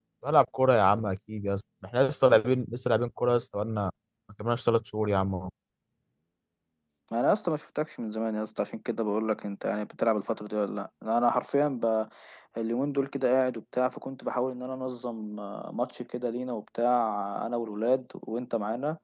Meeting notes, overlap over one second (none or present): none